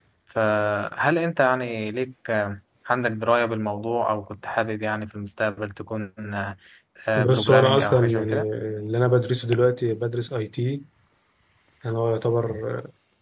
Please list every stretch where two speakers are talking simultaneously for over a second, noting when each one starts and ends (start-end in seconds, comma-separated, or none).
7.2-8.4